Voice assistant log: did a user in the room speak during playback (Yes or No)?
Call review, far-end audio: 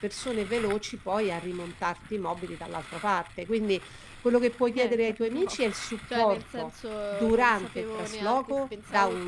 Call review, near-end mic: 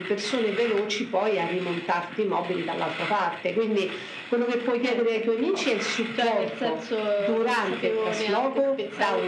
No